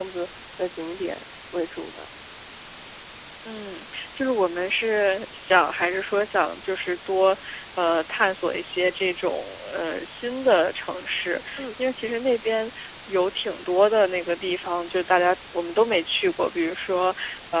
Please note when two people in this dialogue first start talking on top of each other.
none

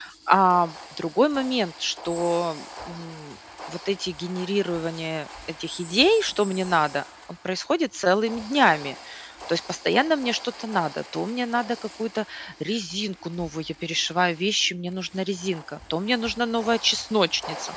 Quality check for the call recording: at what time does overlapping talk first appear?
none

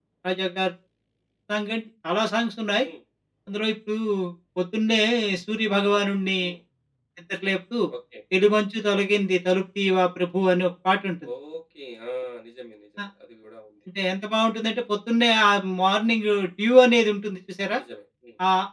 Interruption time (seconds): none

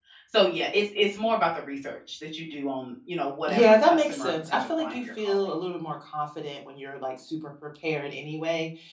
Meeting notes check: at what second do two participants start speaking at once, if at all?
3.5 s

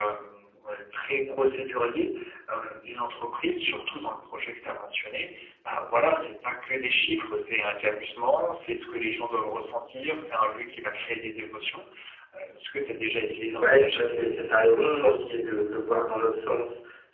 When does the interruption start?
13.5 s

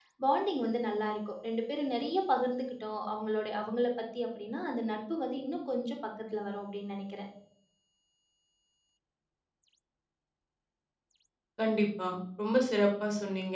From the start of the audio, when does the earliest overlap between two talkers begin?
none

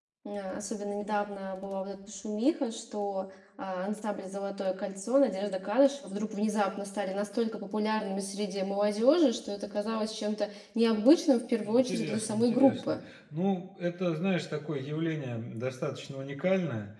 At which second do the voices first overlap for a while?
11.6 s

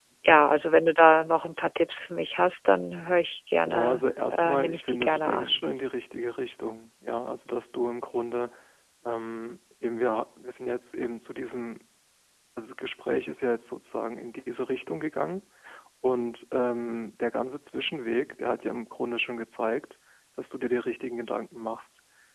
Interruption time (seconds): 3.7 s

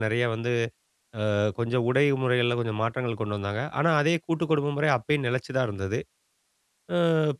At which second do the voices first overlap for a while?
none

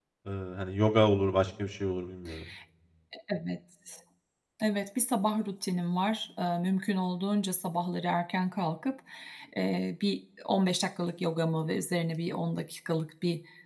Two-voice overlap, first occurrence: none

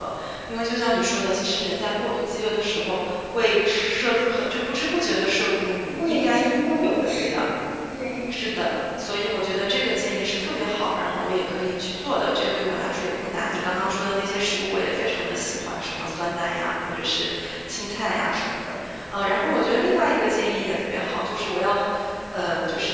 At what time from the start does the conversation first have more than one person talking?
5.9 s

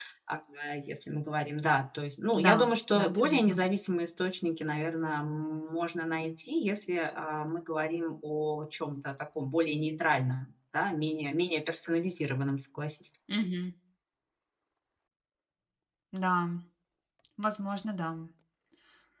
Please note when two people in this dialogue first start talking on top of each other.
2.3 s

